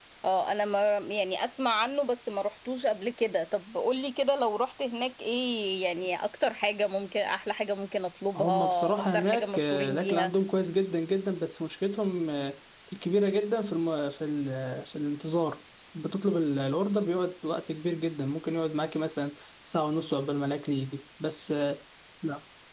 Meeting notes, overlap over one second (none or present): present